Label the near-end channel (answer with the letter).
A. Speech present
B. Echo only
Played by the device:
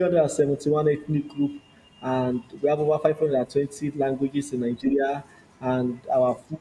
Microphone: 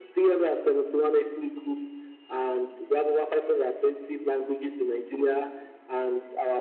B